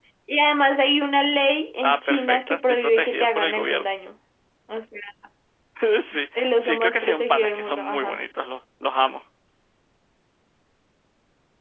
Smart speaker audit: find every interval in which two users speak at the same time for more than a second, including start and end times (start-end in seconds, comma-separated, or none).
1.8-3.9, 6.3-8.2